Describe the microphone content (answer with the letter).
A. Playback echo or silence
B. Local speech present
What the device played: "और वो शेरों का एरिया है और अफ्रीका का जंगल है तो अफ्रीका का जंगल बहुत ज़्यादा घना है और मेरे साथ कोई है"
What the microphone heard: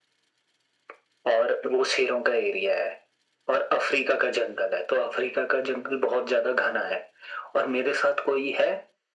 A